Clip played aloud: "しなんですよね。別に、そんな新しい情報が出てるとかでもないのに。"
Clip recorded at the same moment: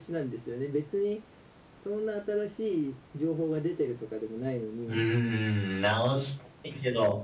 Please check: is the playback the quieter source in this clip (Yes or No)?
Yes